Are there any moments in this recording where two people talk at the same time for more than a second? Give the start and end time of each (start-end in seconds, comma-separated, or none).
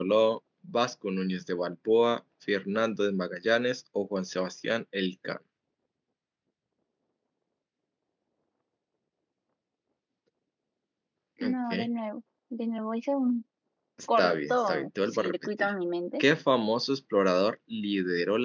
14.2-15.7